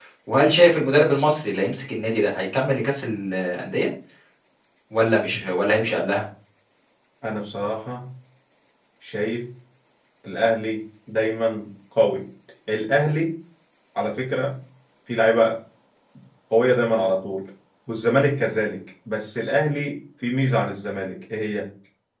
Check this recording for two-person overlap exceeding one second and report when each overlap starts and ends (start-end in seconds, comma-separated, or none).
none